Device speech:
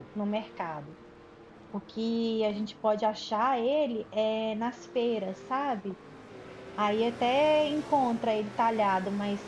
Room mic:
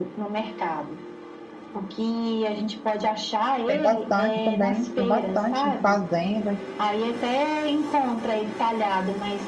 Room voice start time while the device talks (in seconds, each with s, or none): 3.7 s